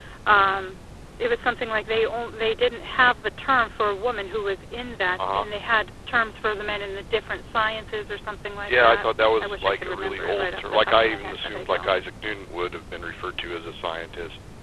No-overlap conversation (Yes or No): No